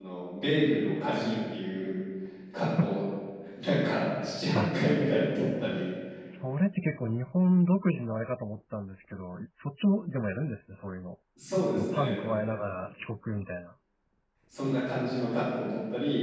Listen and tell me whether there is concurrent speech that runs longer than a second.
No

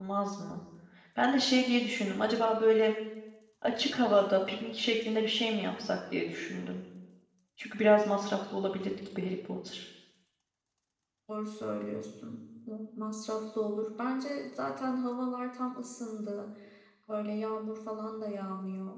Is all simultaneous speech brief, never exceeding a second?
Yes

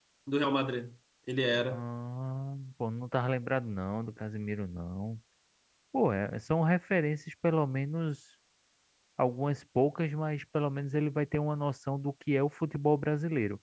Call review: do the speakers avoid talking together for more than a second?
Yes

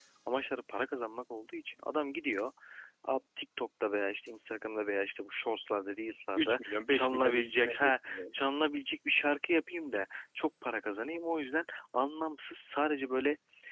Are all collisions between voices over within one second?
No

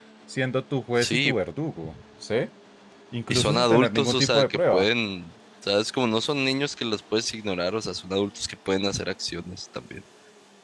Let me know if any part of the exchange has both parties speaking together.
Yes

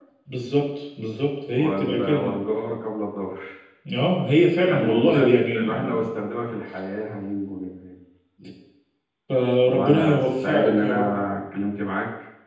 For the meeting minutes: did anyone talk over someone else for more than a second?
Yes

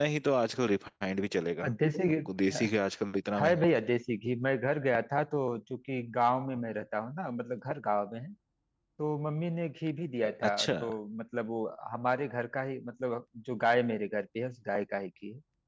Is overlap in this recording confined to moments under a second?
Yes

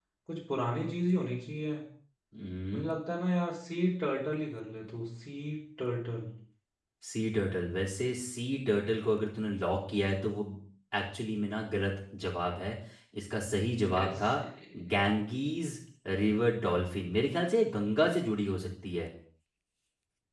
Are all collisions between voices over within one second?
Yes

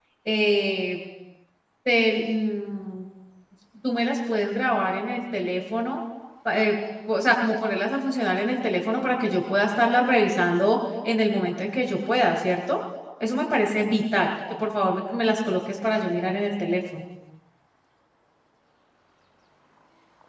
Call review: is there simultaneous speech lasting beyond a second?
No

